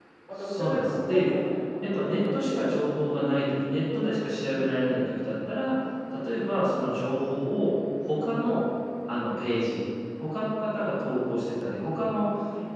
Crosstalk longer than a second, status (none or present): present